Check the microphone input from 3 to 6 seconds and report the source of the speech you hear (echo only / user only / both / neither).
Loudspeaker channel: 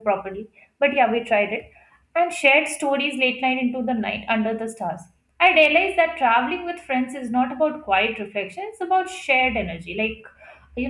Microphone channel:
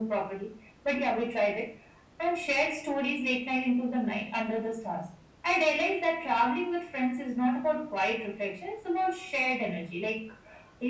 echo only